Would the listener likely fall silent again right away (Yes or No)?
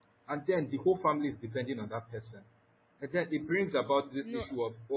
Yes